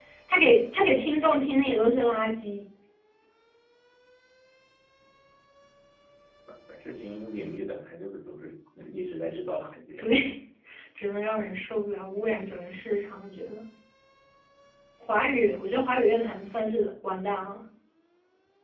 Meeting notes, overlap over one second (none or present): none